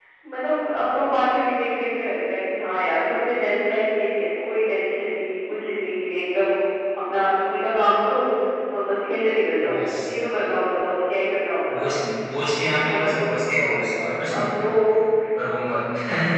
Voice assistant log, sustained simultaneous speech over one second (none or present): none